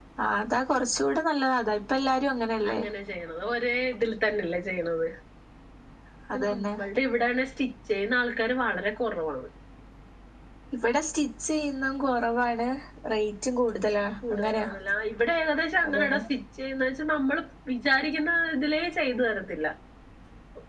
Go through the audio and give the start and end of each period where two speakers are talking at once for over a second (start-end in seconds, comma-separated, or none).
none